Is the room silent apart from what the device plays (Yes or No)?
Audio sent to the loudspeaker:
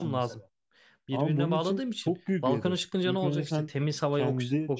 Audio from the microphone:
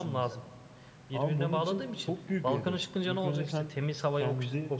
Yes